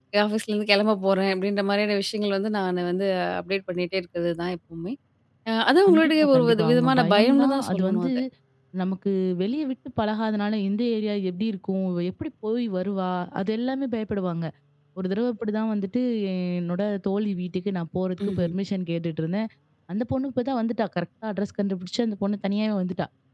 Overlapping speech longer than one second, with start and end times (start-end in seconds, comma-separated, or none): 5.9-8.1